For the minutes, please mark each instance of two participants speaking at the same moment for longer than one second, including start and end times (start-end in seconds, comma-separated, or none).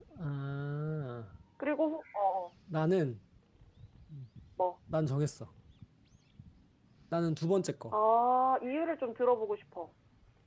none